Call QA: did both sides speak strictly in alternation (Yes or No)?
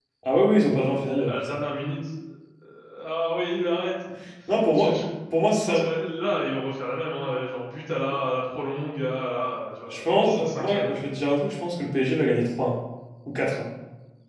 No